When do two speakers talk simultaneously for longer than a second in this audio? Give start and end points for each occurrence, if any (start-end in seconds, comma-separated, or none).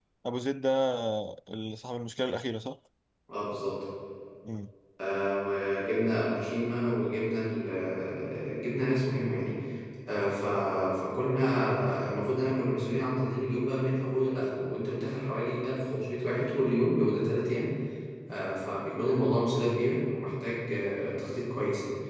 none